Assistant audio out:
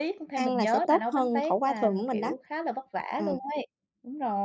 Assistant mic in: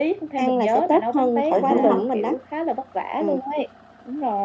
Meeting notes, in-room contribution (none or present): present